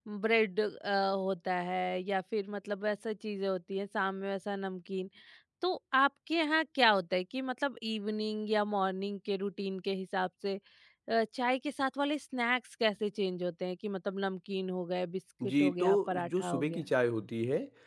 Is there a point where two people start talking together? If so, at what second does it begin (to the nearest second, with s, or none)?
15 s